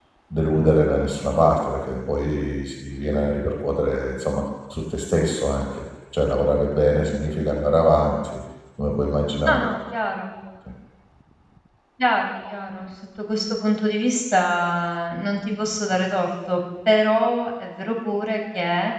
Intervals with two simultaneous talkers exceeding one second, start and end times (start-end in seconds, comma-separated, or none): none